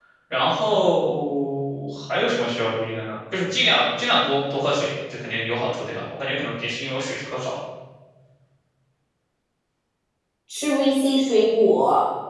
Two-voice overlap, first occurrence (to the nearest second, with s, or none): none